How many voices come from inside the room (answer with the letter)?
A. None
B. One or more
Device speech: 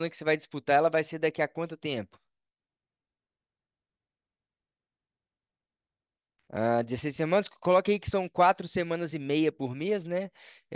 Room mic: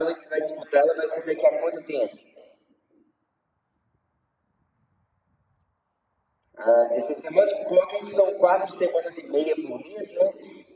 A